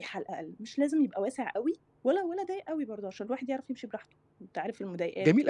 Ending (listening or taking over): taking over